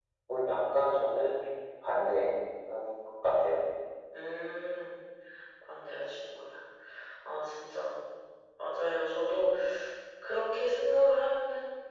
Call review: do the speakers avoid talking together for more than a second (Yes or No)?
Yes